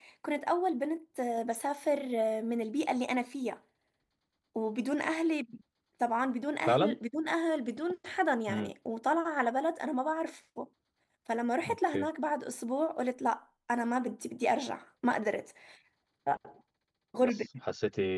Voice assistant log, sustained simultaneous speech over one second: none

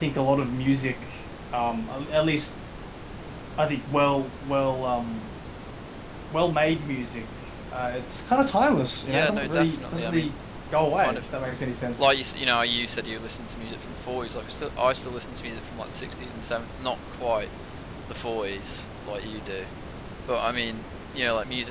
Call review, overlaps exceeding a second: present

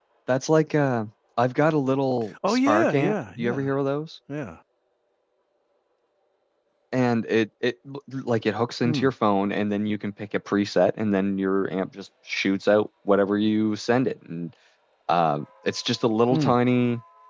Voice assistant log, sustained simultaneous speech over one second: present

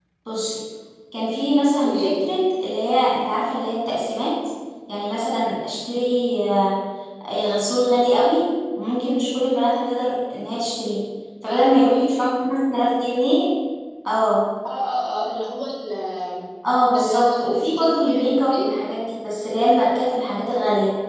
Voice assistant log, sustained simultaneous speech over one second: present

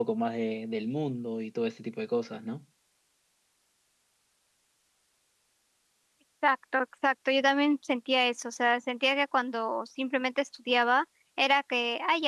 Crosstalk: none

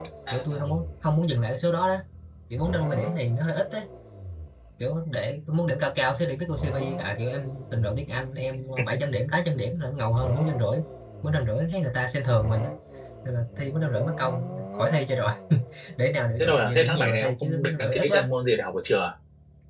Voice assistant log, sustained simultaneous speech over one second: present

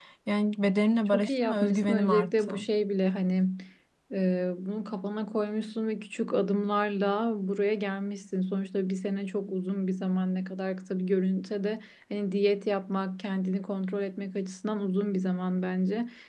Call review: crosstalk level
present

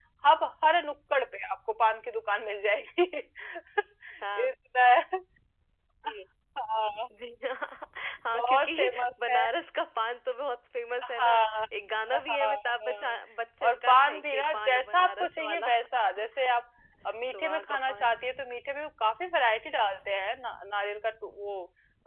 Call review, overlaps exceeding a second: present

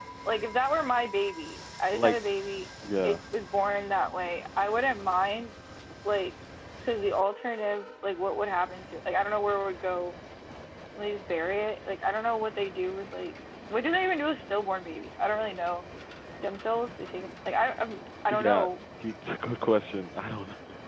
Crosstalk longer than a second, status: none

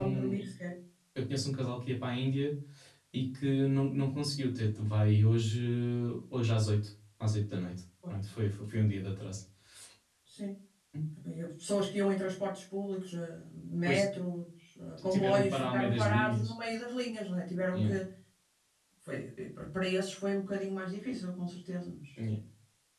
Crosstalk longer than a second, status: present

